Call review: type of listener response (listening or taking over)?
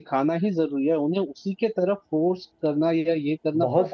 taking over